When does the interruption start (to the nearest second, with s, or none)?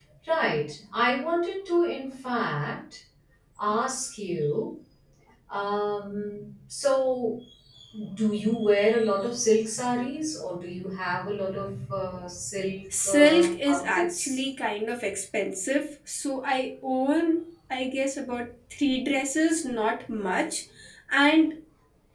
13 s